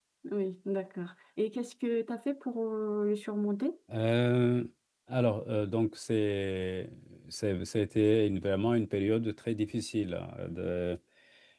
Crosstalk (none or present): none